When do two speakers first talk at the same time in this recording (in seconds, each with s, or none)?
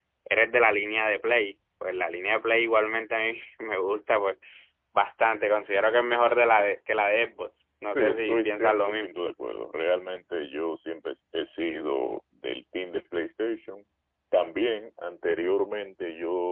7.9 s